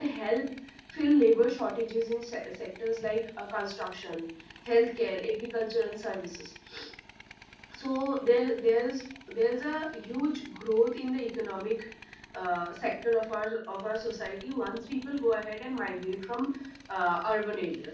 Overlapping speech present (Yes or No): No